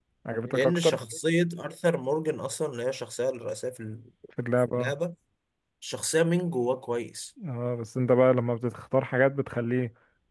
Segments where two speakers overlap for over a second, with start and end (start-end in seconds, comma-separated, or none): none